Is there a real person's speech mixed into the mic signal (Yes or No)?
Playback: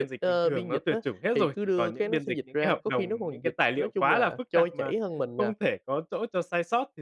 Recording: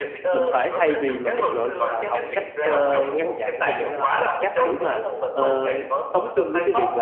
Yes